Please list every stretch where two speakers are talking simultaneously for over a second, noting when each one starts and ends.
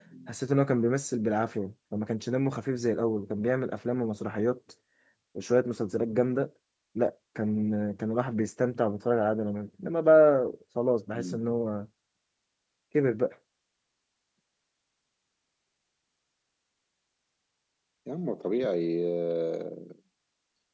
none

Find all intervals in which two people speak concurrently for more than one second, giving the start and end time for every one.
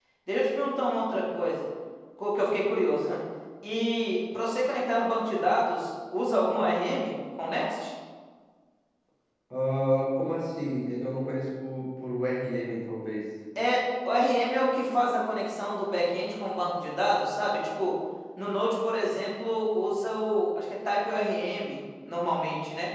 none

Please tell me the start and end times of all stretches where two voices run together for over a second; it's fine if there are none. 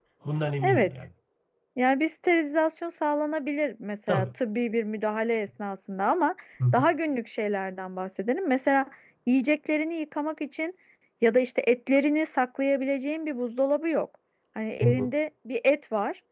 none

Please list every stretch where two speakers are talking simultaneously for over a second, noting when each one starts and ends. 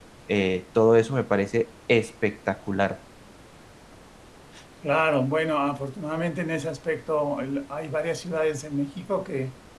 none

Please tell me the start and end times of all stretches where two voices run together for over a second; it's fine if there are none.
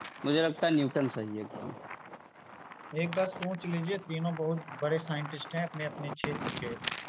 none

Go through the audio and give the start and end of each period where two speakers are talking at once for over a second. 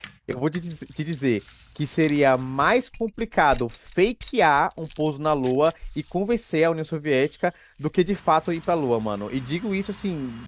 none

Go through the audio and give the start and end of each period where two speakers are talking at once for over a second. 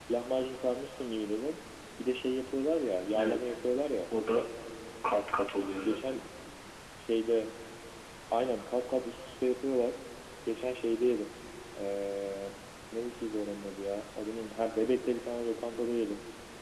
none

